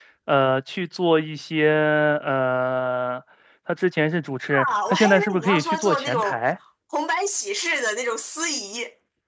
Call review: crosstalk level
present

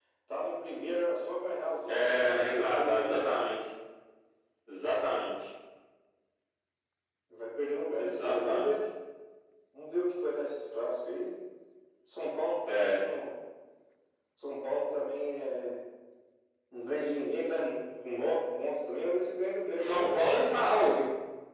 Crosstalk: present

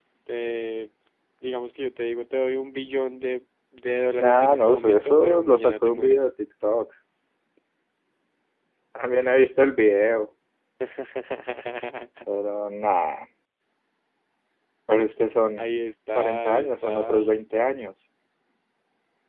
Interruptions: present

